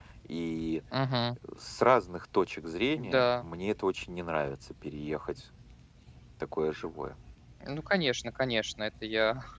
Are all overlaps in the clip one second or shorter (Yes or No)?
Yes